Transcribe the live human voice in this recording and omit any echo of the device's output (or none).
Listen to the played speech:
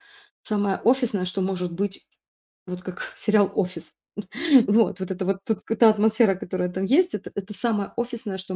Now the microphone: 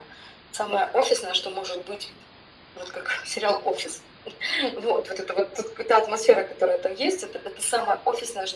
none